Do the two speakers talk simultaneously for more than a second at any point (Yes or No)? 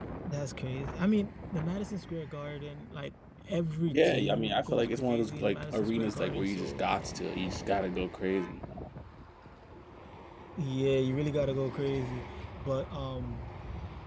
Yes